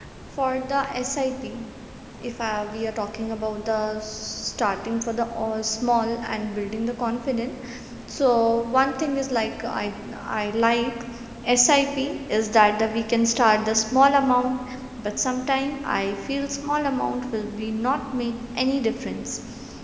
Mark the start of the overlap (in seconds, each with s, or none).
none